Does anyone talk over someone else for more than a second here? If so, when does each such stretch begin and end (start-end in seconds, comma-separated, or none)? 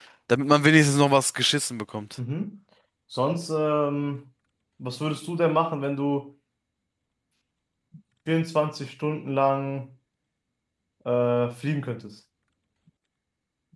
none